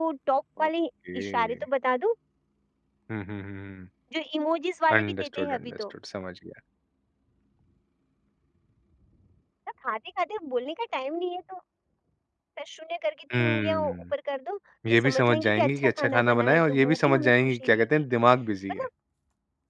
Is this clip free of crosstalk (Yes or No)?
No